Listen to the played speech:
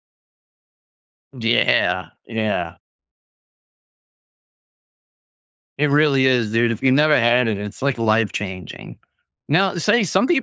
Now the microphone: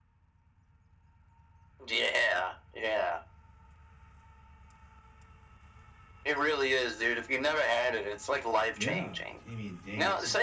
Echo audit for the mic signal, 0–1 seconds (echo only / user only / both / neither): neither